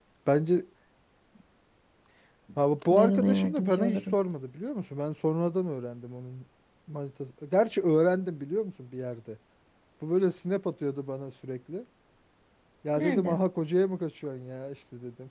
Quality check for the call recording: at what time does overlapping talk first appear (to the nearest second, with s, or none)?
3 s